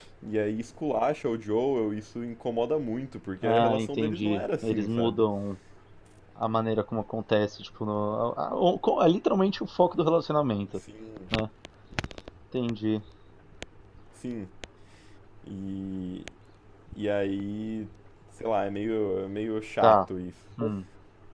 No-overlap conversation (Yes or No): No